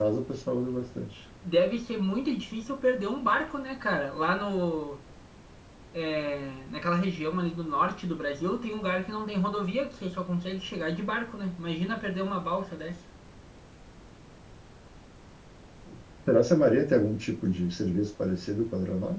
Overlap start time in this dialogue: none

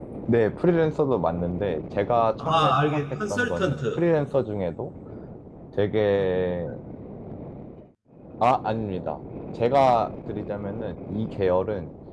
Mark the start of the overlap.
2.4 s

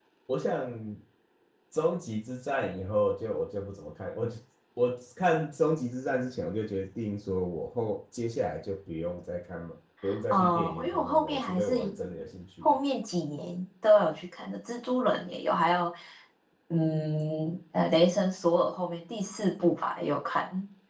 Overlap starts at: 10.3 s

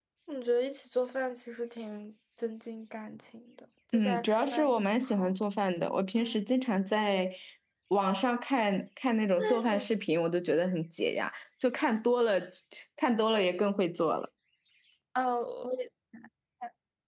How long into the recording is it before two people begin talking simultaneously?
3.9 s

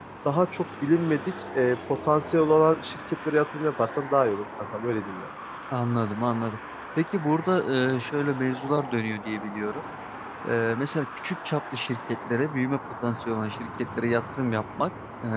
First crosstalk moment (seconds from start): none

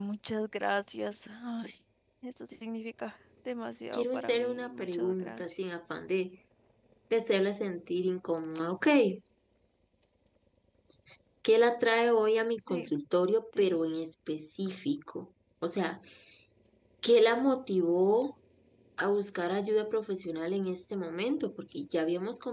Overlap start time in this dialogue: 3.9 s

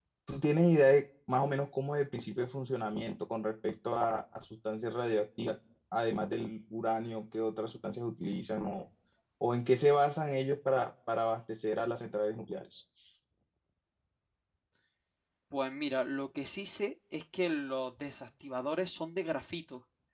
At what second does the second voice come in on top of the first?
none

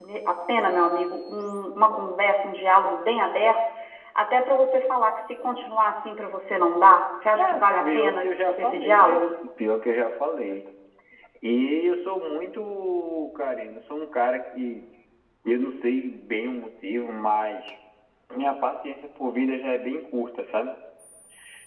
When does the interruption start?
7.4 s

